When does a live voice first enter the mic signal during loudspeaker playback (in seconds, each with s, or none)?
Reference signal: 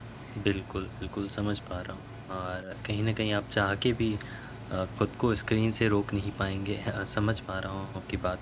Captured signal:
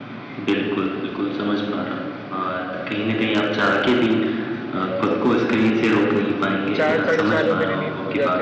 6.6 s